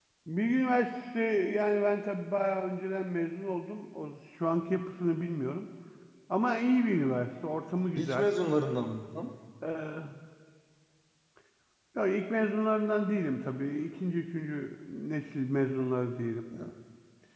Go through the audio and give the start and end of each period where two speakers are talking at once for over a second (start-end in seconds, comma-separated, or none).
none